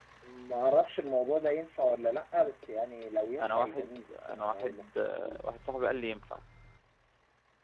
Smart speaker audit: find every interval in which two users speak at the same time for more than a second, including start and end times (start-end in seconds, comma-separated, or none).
3.4-4.8